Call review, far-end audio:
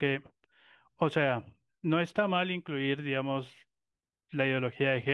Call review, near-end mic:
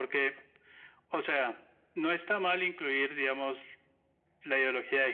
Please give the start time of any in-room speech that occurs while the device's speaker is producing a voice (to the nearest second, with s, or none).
none